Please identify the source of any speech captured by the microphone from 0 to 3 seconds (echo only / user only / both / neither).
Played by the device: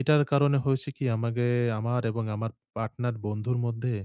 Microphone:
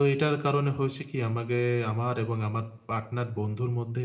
echo only